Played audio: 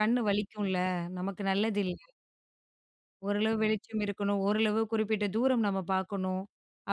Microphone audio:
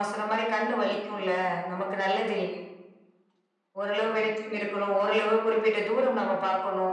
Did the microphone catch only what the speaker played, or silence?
Yes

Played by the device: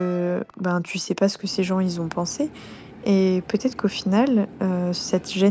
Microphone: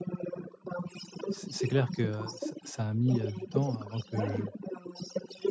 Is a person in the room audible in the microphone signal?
Yes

